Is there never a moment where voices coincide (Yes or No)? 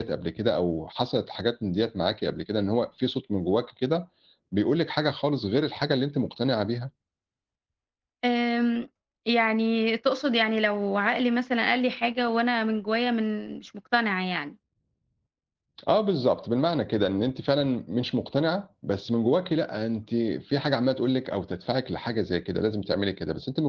Yes